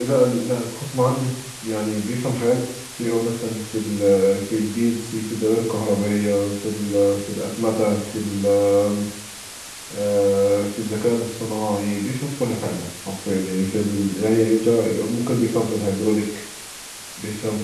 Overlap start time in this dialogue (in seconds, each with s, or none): none